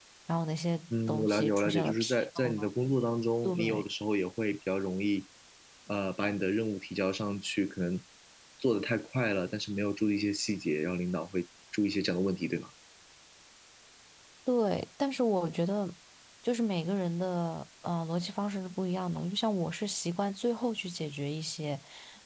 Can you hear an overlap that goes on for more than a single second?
Yes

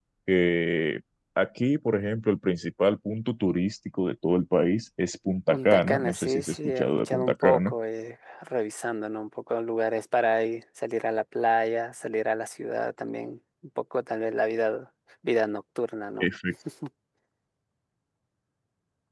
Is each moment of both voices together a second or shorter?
No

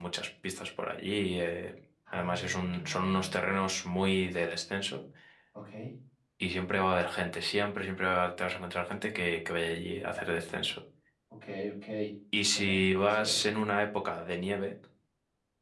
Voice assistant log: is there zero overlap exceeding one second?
No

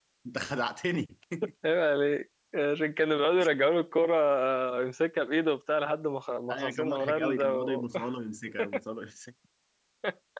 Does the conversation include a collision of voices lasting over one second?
Yes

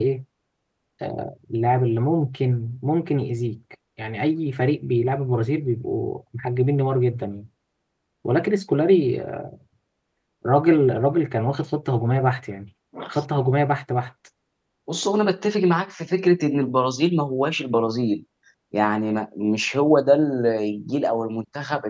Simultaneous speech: No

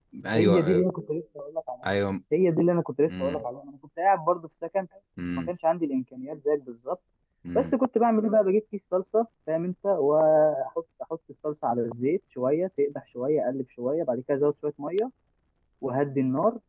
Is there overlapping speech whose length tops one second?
No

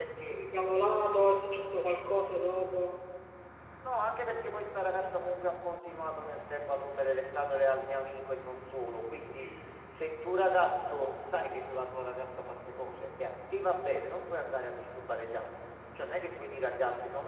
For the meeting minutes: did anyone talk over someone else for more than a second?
No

